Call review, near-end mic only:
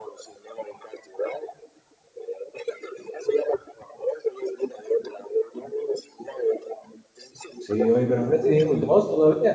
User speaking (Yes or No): Yes